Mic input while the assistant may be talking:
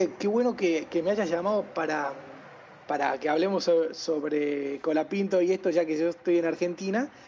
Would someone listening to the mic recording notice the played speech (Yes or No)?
Yes